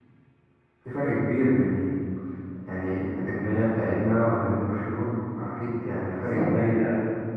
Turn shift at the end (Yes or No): Yes